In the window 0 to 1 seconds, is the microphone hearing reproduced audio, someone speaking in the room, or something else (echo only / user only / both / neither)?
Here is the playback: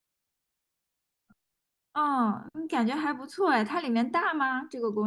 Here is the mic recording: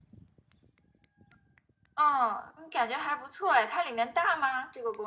neither